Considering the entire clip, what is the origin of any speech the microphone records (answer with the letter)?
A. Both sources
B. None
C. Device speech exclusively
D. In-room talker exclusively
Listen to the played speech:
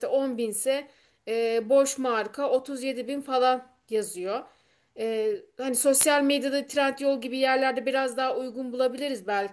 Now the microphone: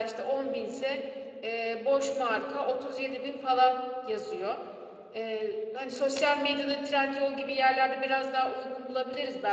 C